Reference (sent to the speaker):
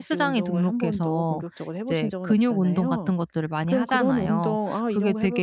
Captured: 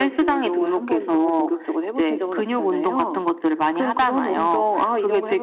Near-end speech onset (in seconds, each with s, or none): none